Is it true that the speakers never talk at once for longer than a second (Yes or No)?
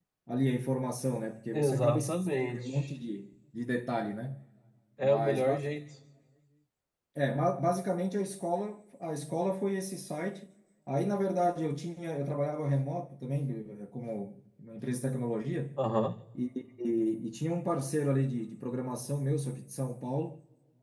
No